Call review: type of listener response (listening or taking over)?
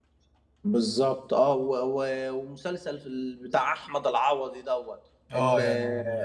listening